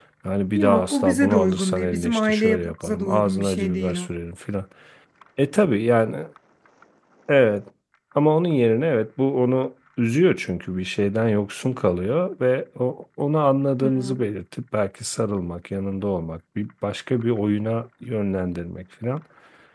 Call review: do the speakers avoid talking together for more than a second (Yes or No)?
No